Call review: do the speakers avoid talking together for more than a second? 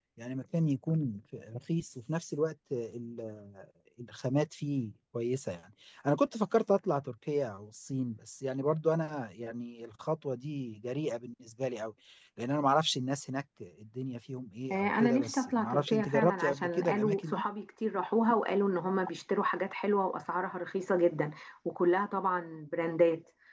No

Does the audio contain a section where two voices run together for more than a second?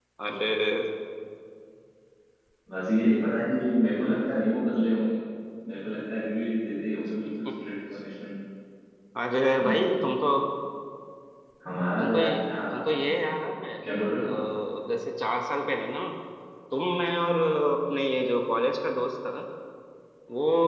Yes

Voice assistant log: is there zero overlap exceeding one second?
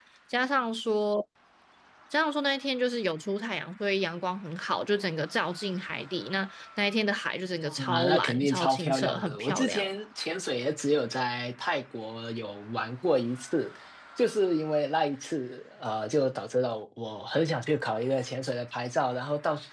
No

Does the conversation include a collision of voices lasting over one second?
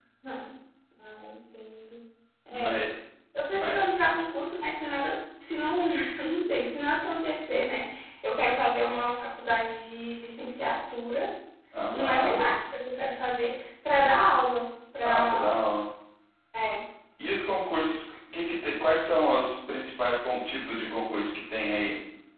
No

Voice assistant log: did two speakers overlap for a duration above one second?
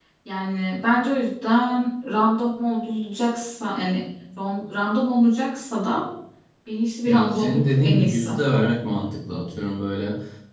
Yes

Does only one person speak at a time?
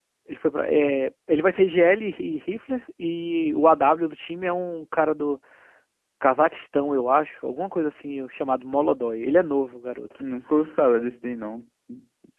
Yes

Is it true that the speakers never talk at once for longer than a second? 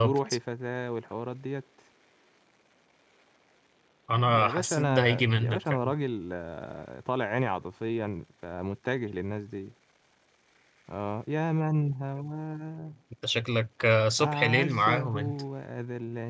No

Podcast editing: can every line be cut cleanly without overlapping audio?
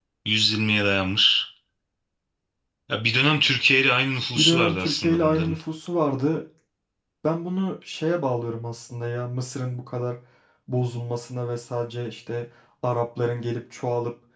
No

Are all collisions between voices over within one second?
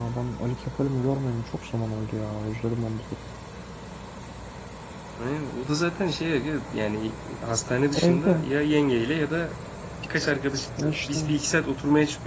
Yes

